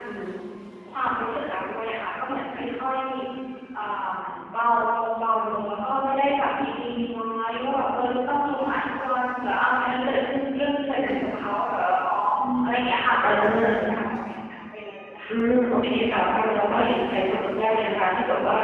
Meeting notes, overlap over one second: present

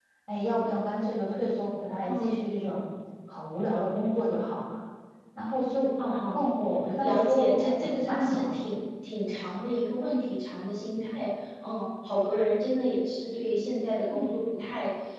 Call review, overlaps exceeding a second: present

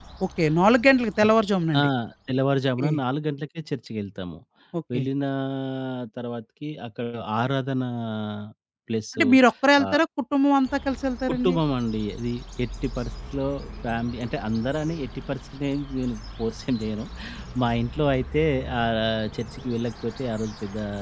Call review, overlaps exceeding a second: none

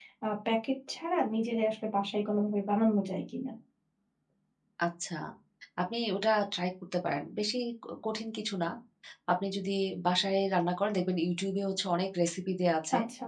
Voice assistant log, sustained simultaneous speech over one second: none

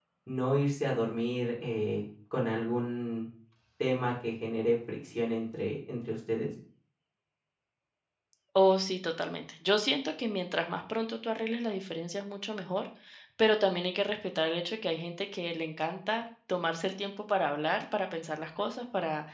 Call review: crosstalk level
none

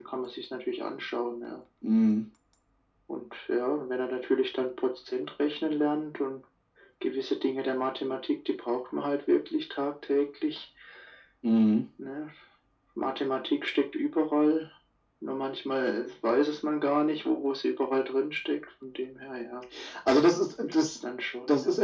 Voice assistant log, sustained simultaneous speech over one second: none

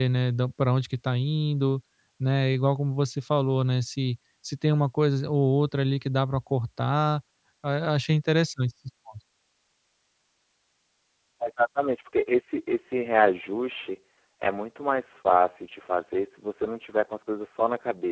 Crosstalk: none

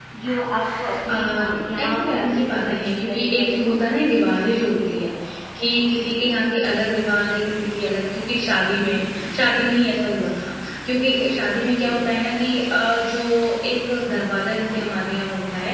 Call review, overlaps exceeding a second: present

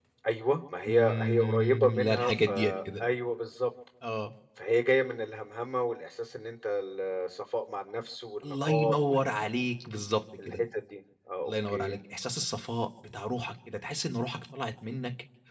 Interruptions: present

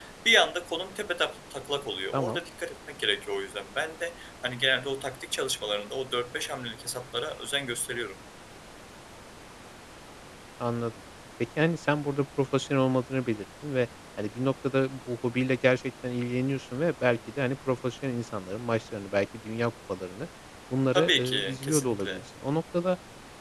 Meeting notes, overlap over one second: present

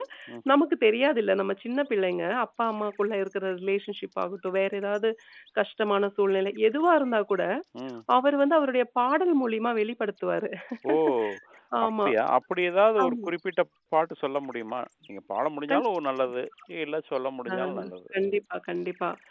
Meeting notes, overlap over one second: none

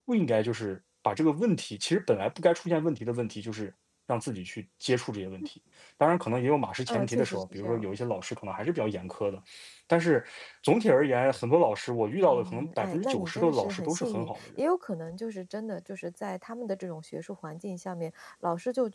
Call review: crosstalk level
present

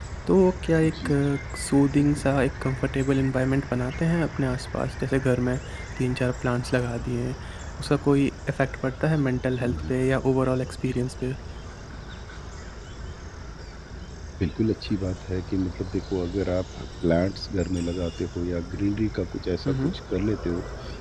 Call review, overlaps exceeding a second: none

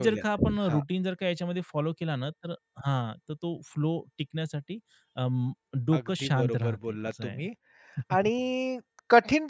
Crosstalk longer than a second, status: present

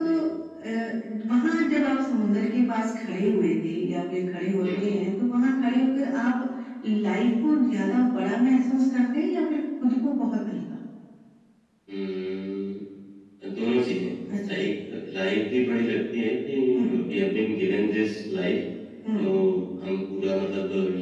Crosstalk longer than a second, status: none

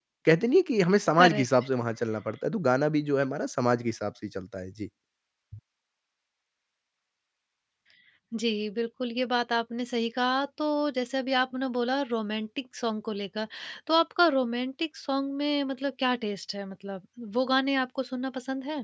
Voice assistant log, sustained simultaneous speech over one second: none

